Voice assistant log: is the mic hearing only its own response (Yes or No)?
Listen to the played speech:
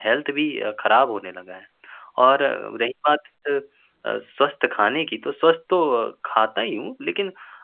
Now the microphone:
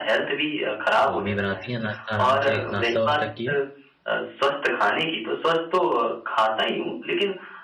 No